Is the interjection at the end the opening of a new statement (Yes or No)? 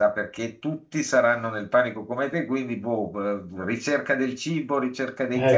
Yes